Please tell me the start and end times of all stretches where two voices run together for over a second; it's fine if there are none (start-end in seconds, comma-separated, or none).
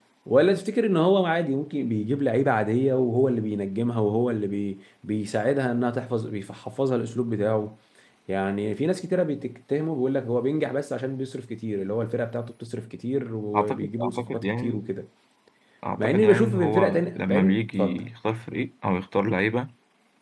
13.6-14.8, 16.0-18.0